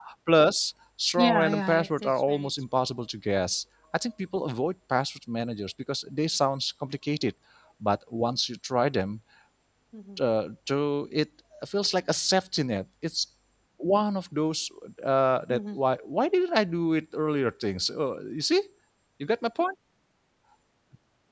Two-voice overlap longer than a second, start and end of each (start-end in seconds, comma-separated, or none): 1.2-2.5